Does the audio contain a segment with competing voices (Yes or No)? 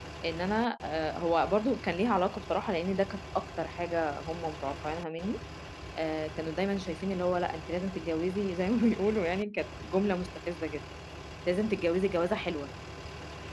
No